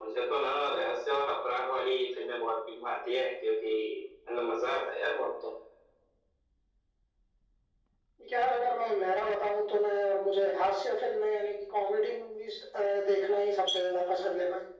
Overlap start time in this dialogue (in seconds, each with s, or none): none